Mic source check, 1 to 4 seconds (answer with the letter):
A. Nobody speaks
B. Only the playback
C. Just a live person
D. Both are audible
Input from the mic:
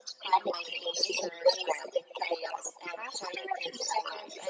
B